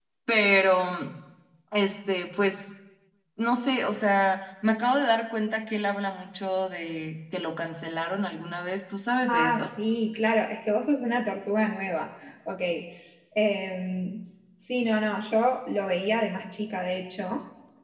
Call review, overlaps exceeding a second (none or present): none